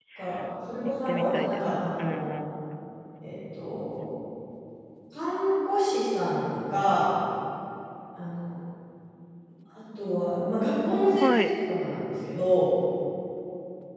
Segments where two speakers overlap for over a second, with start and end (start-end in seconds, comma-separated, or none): 0.8-2.3